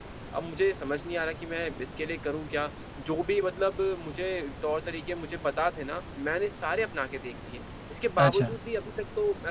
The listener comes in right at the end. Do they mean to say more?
No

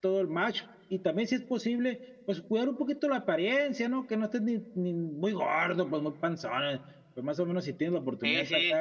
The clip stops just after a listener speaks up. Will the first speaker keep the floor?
Yes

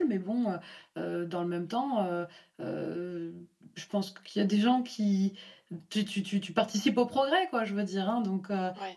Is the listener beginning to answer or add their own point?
No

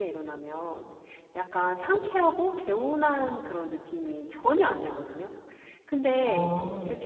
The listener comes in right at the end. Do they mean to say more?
No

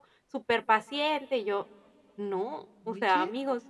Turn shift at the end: No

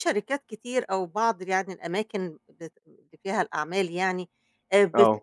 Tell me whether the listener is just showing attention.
Yes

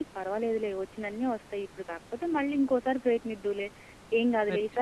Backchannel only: Yes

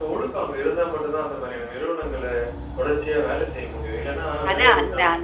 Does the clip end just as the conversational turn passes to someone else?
Yes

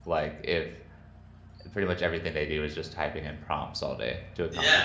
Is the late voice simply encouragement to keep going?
No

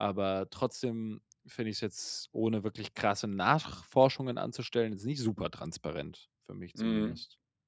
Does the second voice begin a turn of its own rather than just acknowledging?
Yes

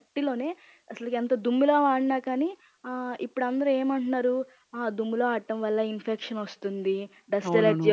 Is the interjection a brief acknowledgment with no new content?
Yes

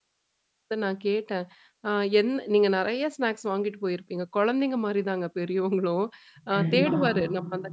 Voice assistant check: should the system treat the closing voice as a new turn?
No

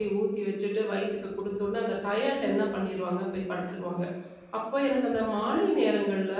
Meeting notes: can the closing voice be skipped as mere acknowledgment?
Yes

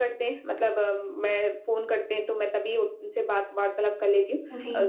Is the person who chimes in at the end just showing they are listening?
Yes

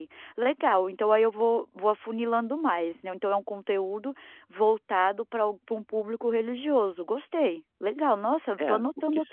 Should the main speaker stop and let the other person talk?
Yes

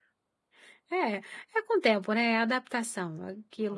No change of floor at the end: Yes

